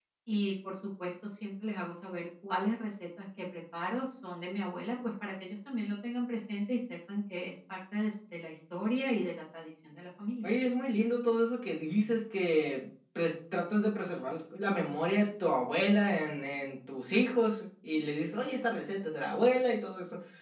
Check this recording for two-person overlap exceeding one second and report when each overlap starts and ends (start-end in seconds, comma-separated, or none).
none